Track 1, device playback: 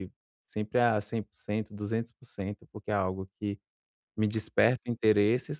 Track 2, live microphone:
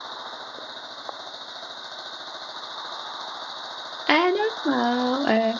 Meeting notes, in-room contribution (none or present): present